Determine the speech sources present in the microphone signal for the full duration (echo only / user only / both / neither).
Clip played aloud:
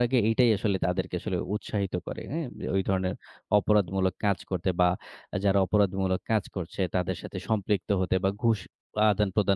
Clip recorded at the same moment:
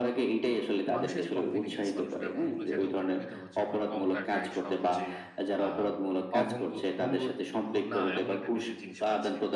both